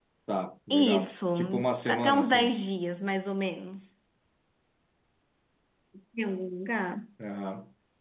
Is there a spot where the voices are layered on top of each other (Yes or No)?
Yes